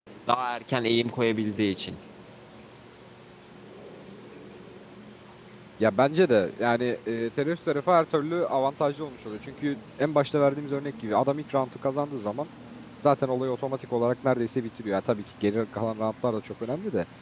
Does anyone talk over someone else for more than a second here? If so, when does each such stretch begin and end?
none

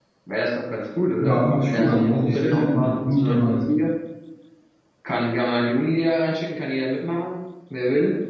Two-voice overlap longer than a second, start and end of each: 1.2-3.6

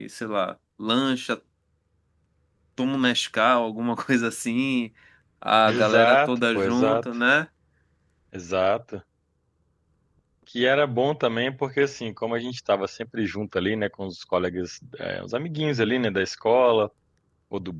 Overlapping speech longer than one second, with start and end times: 5.7-7.1

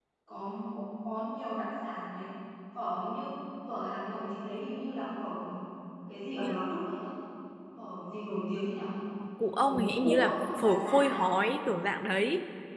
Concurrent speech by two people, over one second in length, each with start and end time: 9.6-11.2

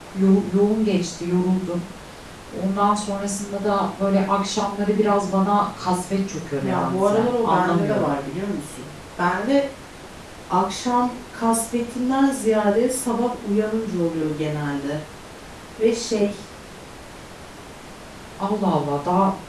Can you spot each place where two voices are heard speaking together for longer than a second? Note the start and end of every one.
6.6-8.1

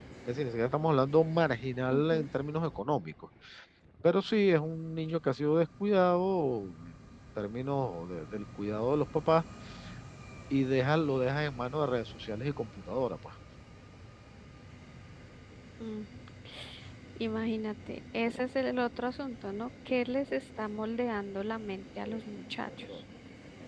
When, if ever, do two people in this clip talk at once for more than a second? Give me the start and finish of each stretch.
none

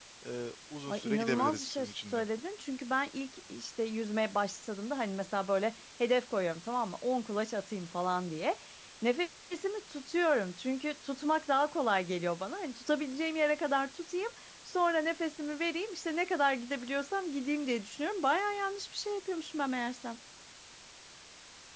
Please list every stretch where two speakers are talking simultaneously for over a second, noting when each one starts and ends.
0.9-2.2

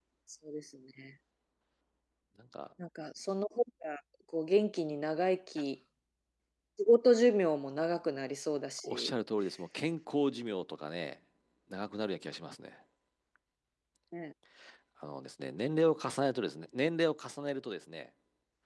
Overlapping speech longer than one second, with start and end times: none

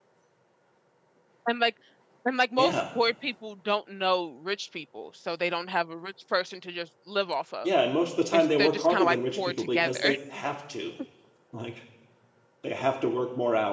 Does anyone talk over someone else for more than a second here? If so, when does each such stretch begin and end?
8.3-10.2

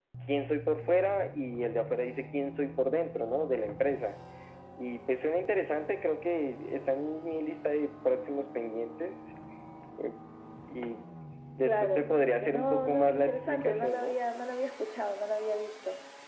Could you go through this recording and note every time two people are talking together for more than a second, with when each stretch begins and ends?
11.6-14.1

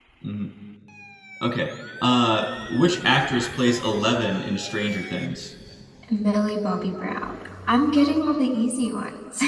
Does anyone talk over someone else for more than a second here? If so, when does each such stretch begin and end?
none

